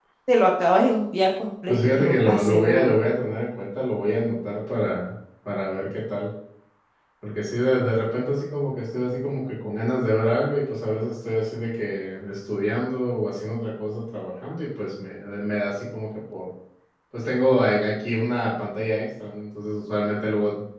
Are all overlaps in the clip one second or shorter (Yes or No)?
No